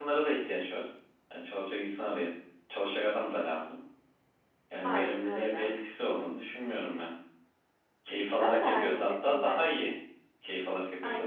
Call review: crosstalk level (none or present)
present